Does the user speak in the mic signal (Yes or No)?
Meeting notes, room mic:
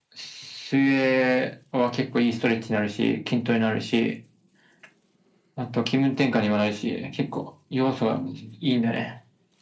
No